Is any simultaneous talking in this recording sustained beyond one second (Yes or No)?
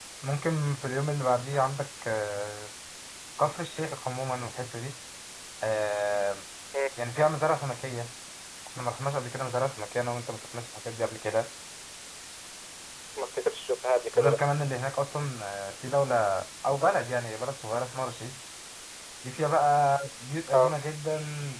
No